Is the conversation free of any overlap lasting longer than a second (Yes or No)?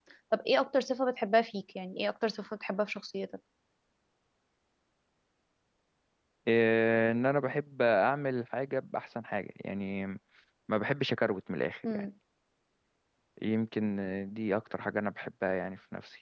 Yes